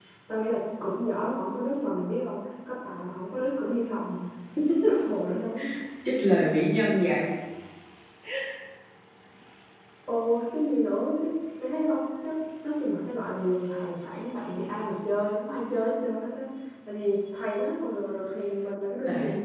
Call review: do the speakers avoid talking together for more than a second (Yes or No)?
Yes